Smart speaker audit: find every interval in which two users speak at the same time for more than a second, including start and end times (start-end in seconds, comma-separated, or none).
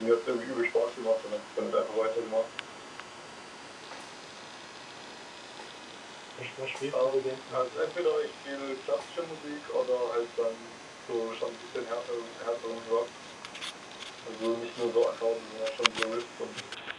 6.9-8.3